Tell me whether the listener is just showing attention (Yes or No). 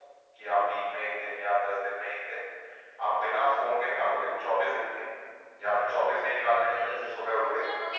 No